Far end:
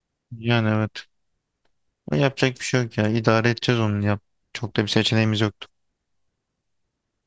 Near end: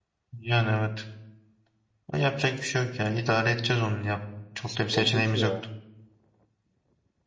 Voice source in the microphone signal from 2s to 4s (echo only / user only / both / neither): echo only